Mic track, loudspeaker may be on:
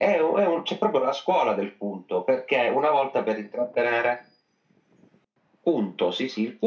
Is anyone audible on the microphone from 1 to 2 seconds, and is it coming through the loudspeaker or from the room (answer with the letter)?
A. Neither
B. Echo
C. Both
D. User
B